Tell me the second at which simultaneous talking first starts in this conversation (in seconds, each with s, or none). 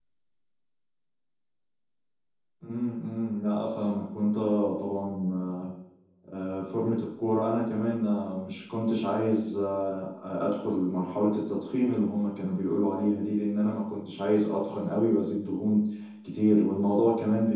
none